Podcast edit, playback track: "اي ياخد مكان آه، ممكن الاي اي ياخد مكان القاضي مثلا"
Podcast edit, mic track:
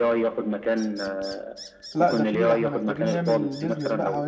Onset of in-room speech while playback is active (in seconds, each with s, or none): 1.9 s